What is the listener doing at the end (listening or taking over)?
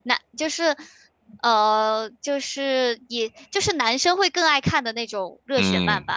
taking over